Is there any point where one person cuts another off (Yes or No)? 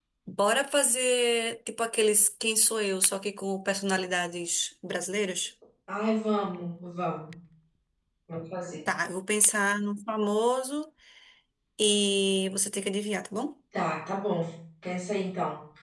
No